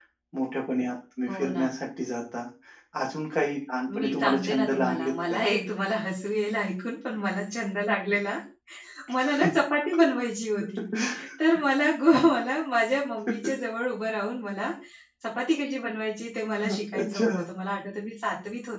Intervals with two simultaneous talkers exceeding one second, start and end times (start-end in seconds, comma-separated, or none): 4.0-5.4